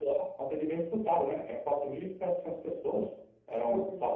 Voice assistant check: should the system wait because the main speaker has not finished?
Yes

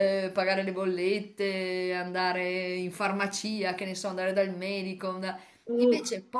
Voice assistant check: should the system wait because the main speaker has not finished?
Yes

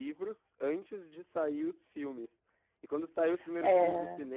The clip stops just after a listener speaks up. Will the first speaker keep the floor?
Yes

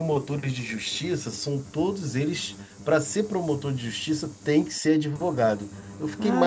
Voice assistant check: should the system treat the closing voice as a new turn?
Yes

